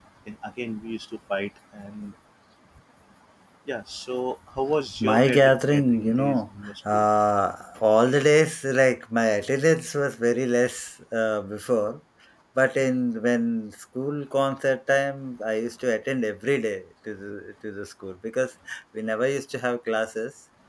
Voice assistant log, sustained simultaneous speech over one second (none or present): present